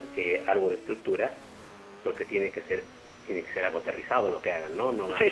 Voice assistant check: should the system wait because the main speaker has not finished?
No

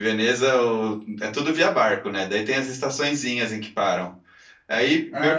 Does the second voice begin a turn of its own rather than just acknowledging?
No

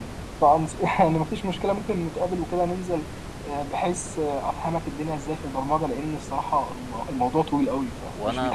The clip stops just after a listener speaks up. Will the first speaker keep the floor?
No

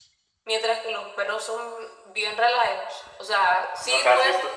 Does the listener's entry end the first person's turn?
Yes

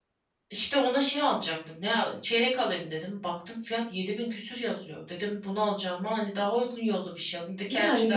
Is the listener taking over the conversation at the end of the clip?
Yes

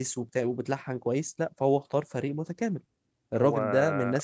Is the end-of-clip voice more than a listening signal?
No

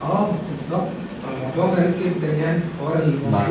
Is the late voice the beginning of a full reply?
Yes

